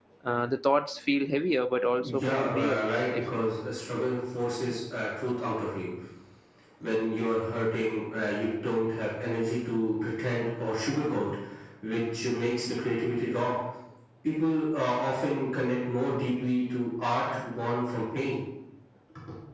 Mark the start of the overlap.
2.0 s

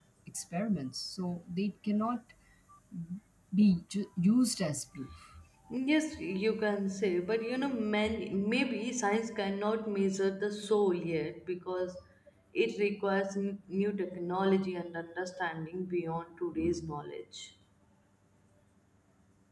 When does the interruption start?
none

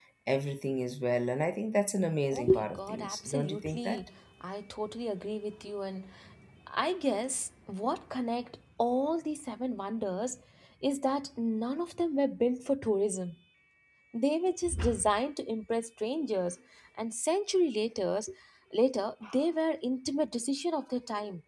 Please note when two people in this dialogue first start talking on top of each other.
2.3 s

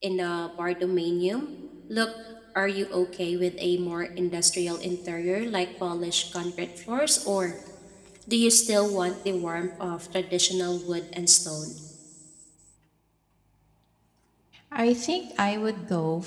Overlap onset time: none

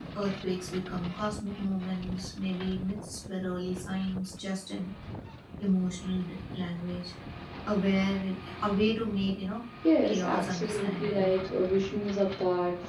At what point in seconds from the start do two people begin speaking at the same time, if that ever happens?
10.0 s

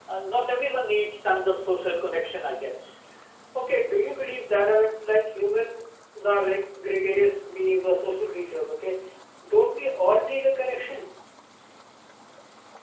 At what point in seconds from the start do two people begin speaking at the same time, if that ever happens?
none

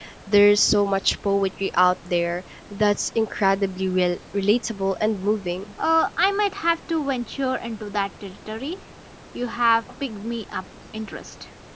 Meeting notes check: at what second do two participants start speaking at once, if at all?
none

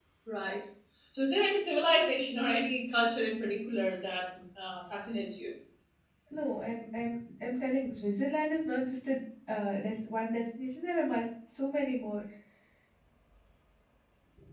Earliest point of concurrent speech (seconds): none

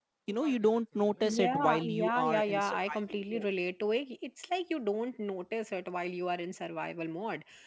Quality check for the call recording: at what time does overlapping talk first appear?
1.2 s

